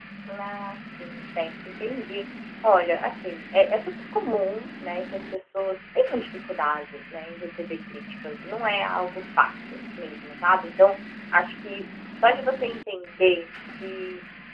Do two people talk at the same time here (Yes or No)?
No